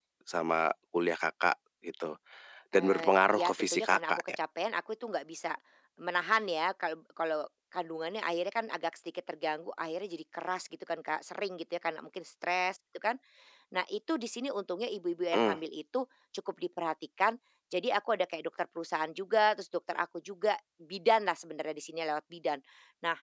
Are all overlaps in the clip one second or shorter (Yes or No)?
No